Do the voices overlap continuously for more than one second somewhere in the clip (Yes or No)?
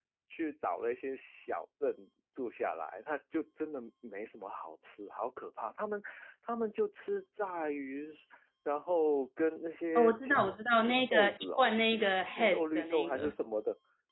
Yes